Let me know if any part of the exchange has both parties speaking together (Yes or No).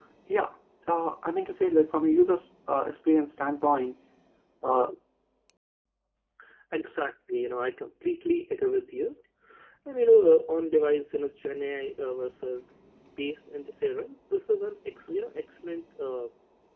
No